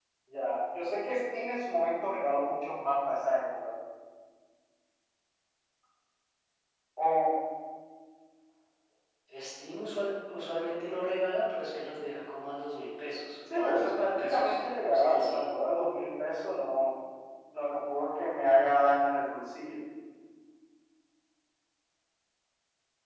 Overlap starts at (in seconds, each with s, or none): 13.5 s